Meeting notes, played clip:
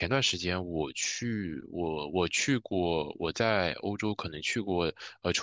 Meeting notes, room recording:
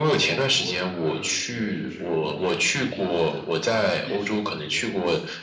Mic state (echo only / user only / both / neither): both